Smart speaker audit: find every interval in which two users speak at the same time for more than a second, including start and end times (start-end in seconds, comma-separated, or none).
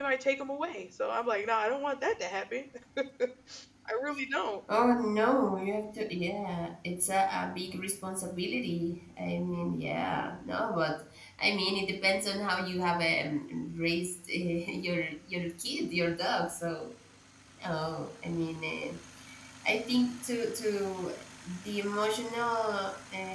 none